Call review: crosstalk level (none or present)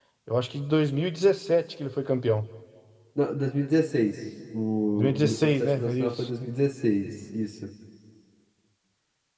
present